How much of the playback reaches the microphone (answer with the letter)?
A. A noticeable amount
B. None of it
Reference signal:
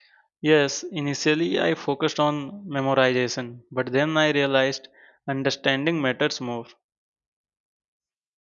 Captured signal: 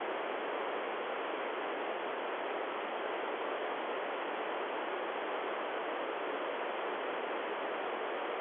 B